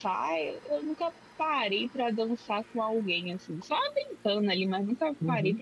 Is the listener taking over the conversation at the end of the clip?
No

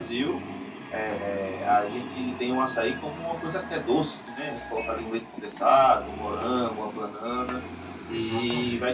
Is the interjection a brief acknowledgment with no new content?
Yes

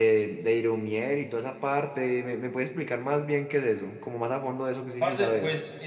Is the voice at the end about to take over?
Yes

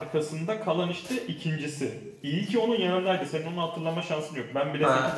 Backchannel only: No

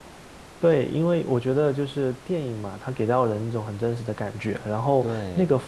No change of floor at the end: Yes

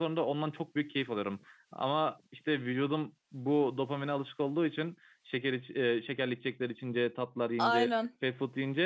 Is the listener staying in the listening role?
Yes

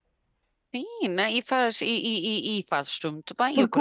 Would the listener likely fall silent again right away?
No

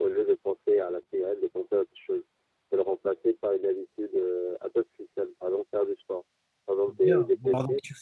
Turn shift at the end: Yes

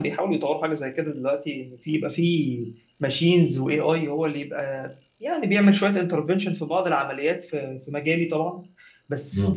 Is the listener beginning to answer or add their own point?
No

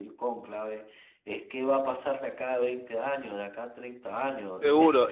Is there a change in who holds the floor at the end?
Yes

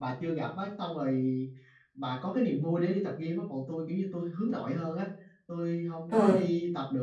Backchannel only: Yes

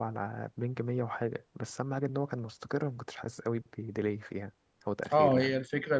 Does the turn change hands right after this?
Yes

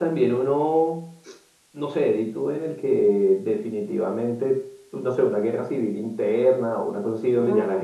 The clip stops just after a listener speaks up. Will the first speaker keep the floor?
Yes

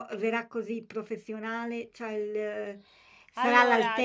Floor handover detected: No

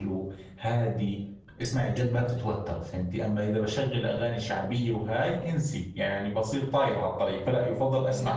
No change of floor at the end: No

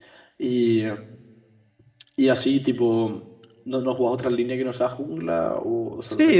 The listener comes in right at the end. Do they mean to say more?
Yes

